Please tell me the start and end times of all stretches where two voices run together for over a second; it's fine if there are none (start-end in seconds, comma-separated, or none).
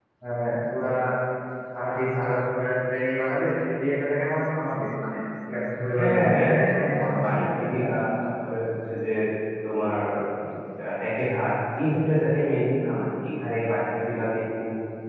6.0-7.9